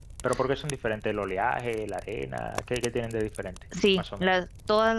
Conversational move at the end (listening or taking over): taking over